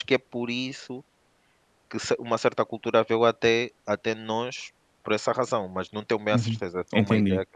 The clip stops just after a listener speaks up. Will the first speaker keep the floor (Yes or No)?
No